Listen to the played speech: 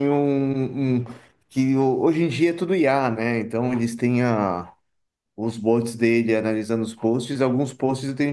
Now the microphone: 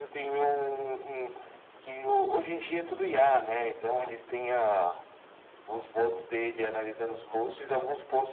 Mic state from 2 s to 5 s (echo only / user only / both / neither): echo only